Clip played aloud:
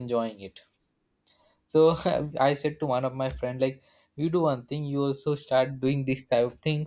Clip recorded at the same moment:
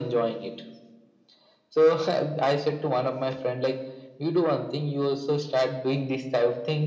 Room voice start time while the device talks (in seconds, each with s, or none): none